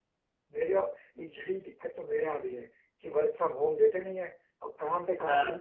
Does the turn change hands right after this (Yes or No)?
No